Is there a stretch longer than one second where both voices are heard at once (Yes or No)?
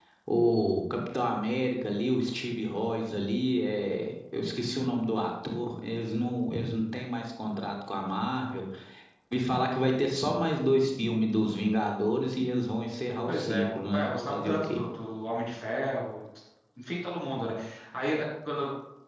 Yes